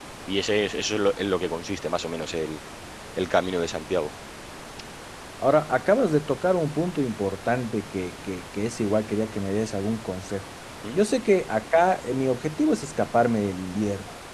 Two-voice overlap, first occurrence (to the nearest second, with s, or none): none